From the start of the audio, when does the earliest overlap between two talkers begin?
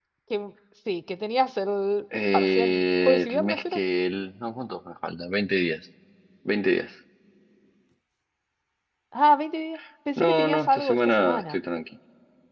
2.3 s

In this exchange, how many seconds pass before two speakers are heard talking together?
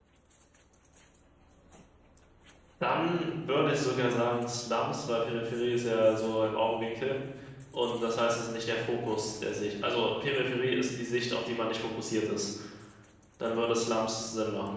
none

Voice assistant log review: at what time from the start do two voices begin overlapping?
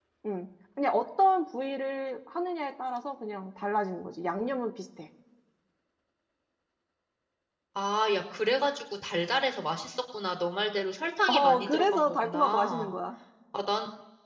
11.3 s

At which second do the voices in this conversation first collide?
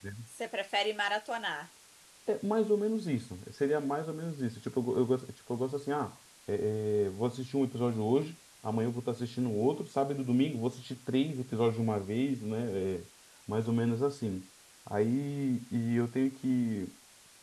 none

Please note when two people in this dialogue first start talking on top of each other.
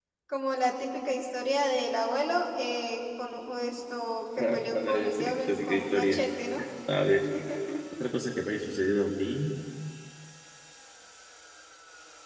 4.4 s

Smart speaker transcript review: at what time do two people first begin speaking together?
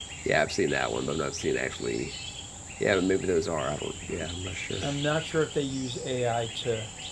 none

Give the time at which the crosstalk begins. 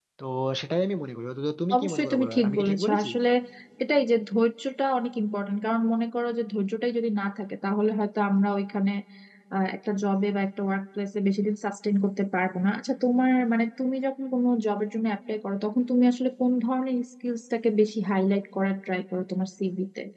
1.7 s

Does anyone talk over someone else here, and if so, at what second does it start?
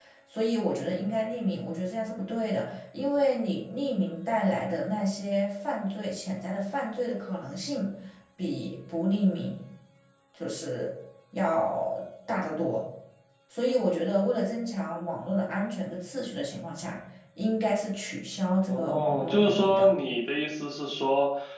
18.7 s

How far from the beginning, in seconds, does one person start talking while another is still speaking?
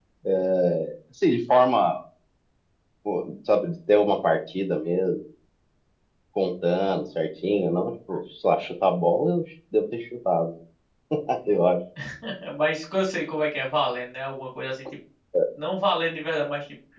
none

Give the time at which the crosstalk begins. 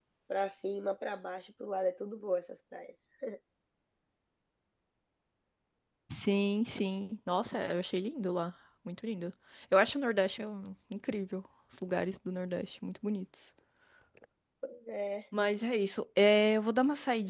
none

